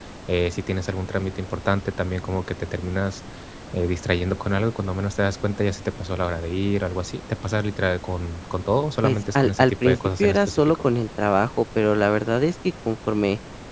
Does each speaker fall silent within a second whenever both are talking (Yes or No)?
No